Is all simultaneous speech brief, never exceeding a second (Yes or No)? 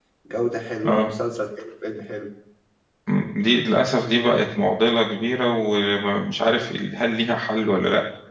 Yes